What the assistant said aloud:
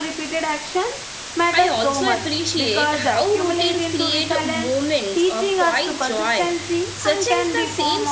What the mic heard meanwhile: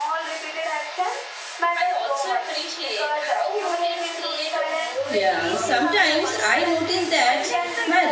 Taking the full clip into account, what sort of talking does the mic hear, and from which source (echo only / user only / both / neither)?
both